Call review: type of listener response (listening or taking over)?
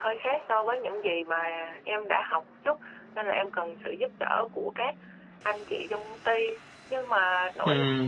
listening